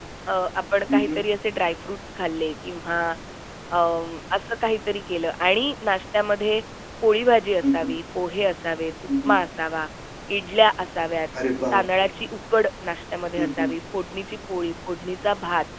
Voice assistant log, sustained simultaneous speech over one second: none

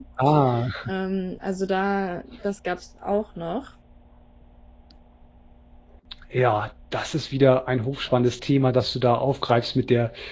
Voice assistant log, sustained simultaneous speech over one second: none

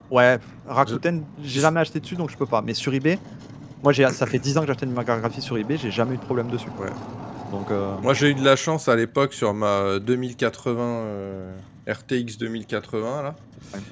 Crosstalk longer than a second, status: none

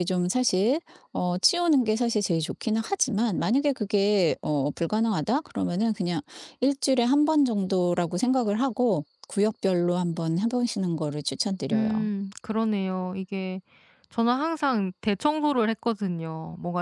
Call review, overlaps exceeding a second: none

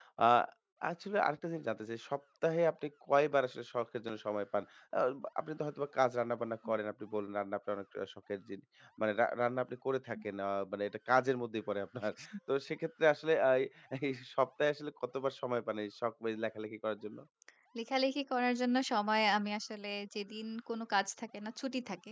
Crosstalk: none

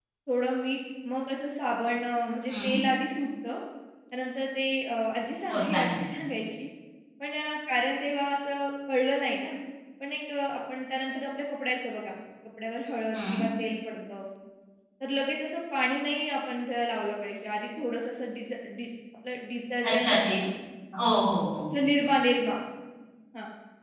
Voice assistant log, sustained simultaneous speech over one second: none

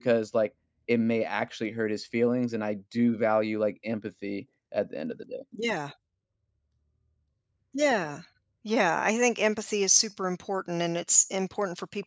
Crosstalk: none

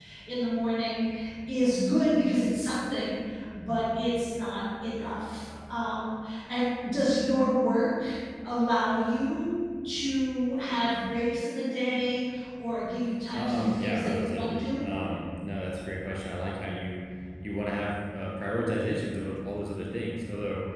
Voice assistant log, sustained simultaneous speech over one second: present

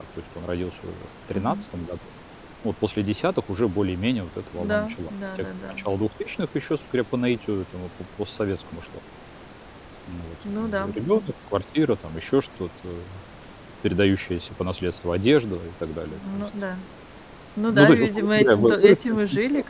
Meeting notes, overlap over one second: present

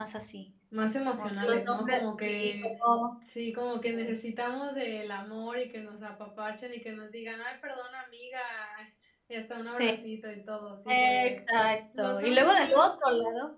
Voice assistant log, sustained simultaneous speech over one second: present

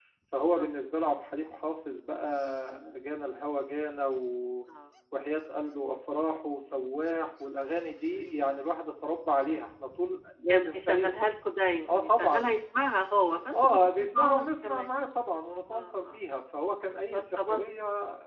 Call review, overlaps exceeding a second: present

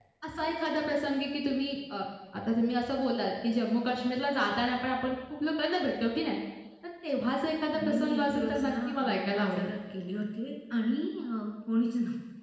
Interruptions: present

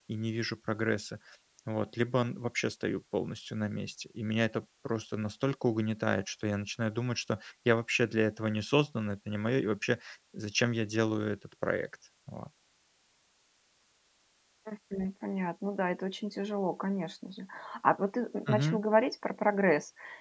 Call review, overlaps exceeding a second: none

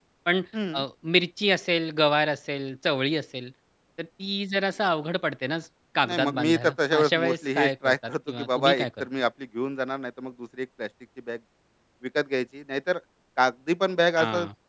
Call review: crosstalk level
present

